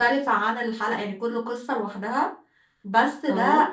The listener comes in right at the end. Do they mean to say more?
No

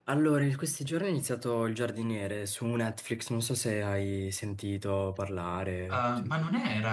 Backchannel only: No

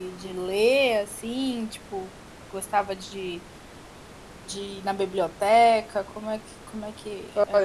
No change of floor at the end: No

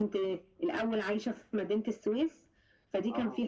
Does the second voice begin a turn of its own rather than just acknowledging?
No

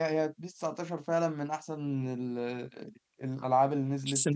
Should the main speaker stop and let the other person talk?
Yes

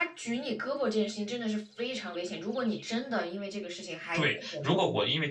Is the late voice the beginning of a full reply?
Yes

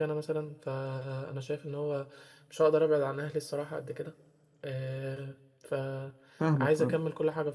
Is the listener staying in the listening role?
Yes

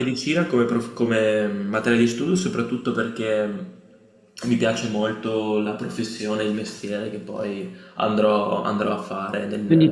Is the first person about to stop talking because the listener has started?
Yes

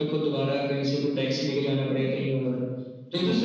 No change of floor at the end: Yes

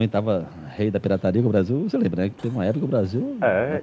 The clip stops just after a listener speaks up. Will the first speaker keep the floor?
No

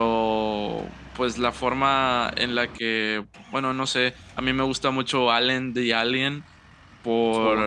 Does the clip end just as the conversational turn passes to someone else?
No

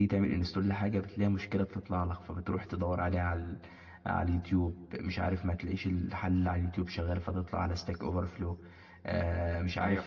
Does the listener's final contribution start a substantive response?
No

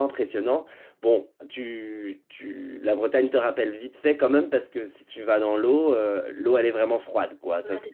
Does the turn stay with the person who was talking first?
Yes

